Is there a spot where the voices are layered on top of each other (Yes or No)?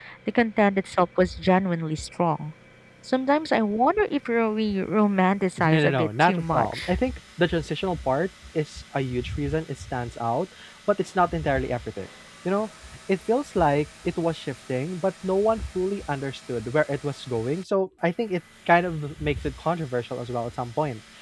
Yes